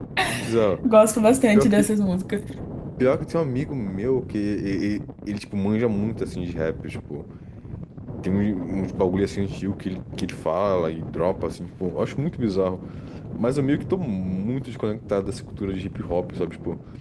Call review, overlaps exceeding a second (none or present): none